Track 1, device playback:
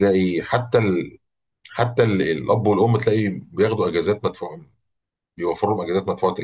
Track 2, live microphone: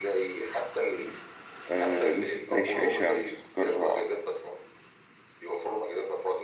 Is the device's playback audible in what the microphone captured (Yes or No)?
Yes